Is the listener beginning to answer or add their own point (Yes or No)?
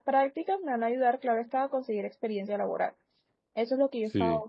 No